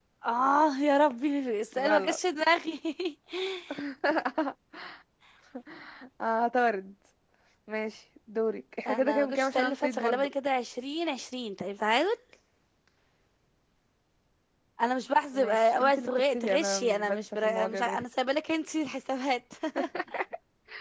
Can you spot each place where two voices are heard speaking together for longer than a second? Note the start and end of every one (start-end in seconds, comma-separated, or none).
8.9-10.3, 15.3-18.0